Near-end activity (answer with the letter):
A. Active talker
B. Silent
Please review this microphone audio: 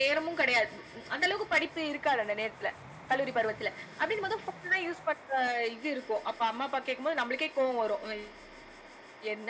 B